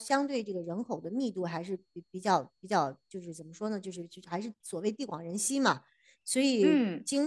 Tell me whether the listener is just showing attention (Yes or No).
Yes